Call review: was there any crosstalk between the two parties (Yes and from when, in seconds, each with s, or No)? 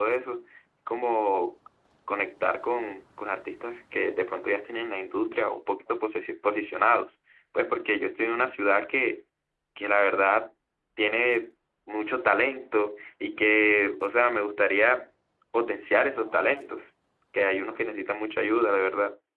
No